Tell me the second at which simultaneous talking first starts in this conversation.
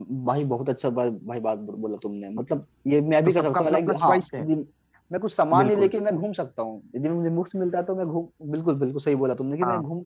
3.2 s

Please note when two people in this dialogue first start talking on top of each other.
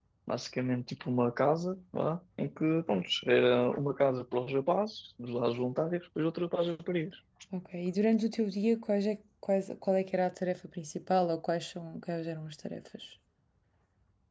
none

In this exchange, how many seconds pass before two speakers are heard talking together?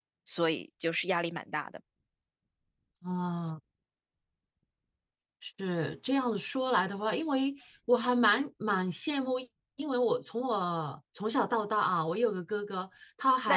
none

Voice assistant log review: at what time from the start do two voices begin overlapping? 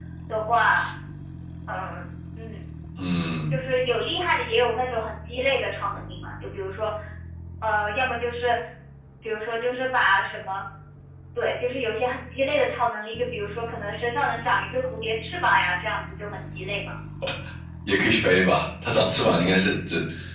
none

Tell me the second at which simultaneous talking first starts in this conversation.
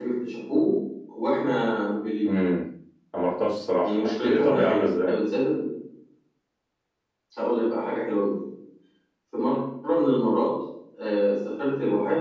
3.8 s

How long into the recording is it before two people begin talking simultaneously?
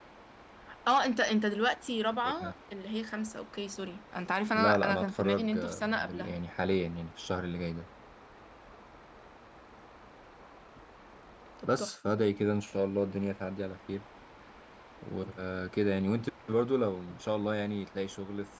4.5 s

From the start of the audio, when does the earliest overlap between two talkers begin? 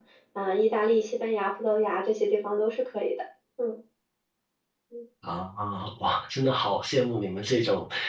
none

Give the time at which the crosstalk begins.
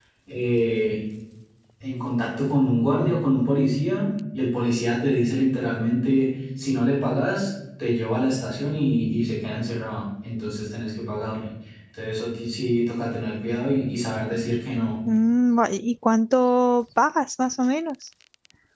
none

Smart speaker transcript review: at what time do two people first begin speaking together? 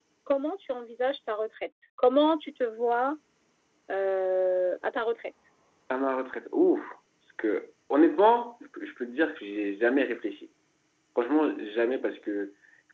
none

